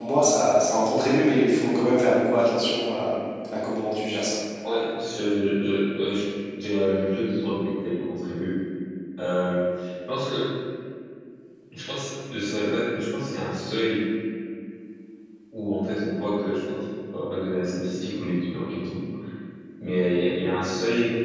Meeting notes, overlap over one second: none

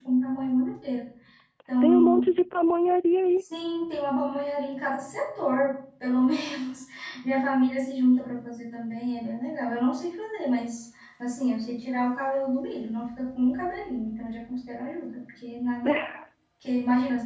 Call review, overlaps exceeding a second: none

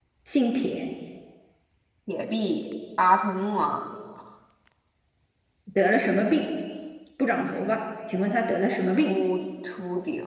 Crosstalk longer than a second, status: none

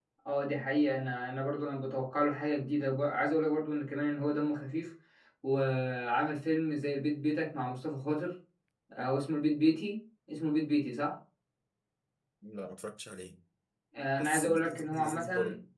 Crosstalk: present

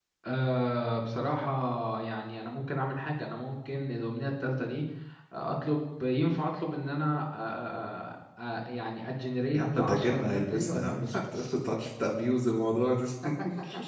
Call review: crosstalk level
present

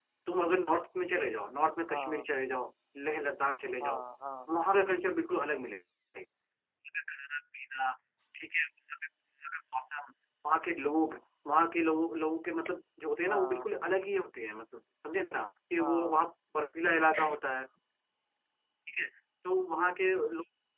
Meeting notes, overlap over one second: none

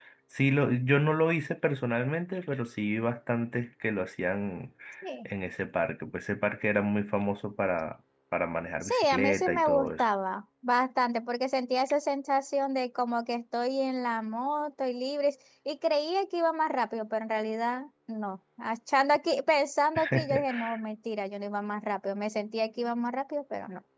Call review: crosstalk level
present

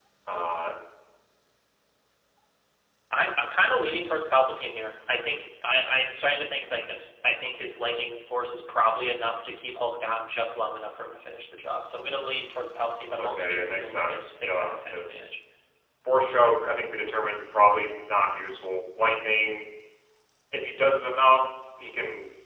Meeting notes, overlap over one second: present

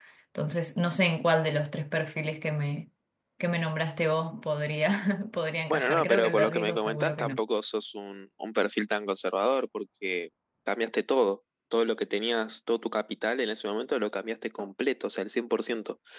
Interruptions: present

